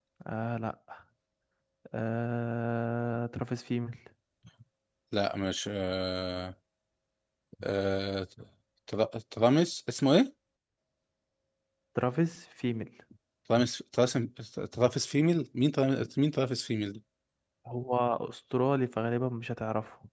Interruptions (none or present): none